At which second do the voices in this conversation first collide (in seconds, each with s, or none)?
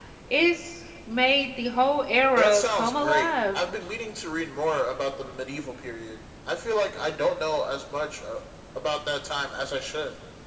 2.4 s